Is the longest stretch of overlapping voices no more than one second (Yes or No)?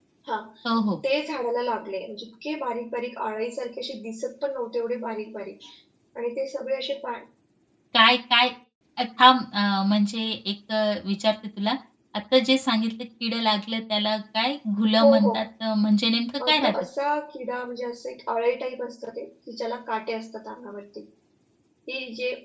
Yes